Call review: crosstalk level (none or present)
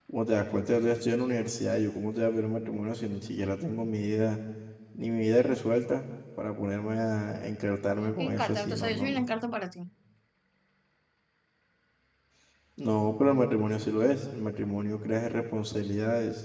present